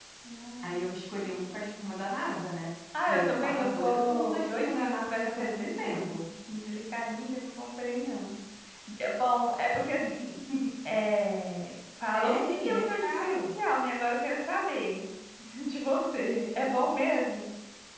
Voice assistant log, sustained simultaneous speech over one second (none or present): present